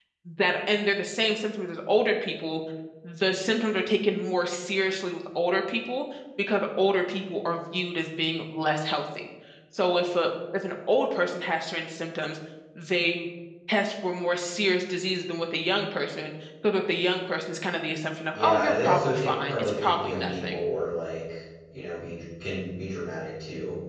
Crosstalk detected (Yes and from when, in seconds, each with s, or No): Yes, from 18.4 s